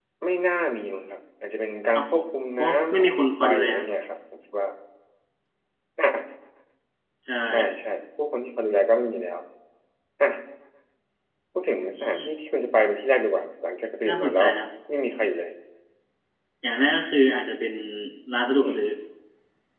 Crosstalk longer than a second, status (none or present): present